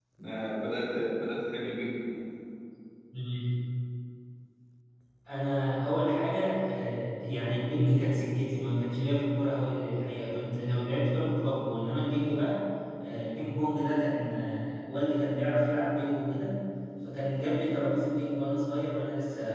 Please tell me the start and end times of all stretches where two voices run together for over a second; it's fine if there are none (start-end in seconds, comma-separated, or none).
none